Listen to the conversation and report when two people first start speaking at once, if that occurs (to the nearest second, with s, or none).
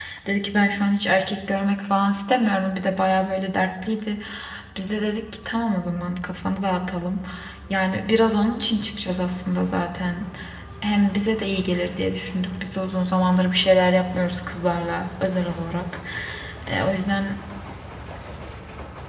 none